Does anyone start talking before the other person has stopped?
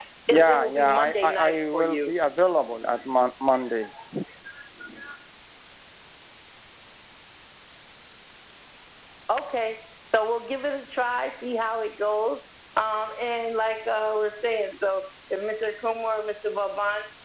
Yes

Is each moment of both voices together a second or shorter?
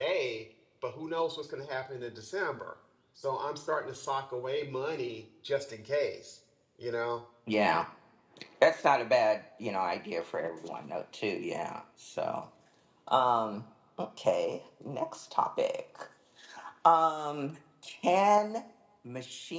Yes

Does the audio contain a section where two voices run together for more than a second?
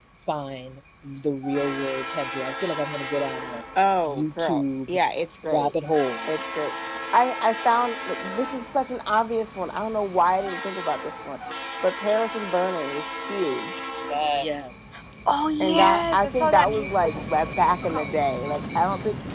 Yes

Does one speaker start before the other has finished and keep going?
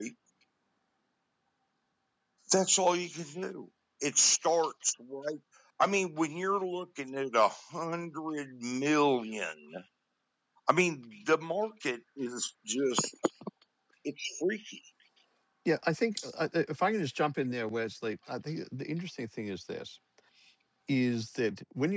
No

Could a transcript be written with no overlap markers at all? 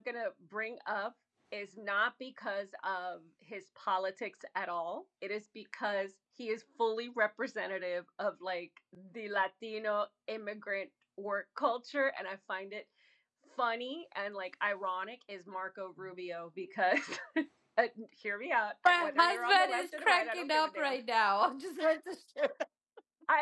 No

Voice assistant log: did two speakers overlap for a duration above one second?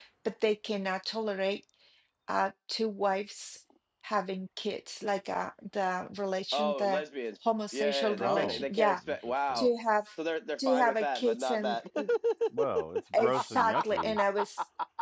Yes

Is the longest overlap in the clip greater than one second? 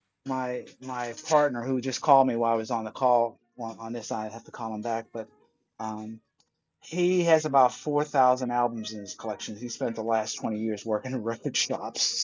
No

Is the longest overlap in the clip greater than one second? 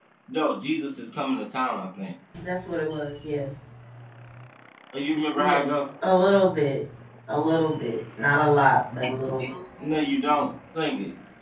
No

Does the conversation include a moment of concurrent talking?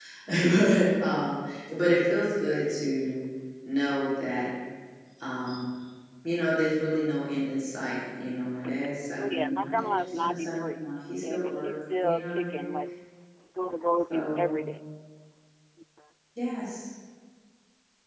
Yes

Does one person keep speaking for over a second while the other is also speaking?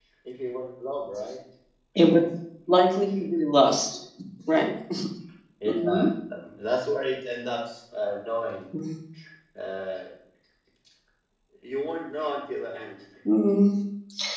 No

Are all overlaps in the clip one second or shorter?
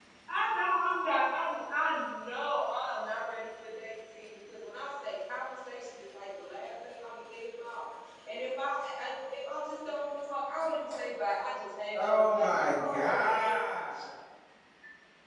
No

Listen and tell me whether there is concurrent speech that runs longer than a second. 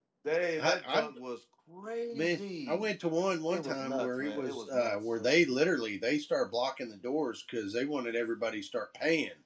Yes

